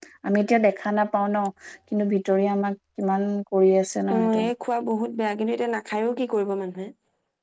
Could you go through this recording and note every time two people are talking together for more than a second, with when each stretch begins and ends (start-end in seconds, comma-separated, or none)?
none